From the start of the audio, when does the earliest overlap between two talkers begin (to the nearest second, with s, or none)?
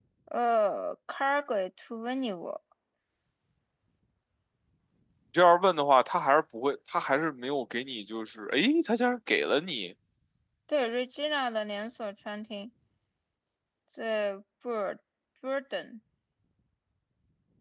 none